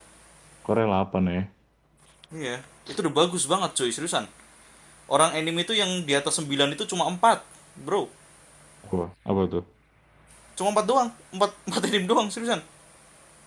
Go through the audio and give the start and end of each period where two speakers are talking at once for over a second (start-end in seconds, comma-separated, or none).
none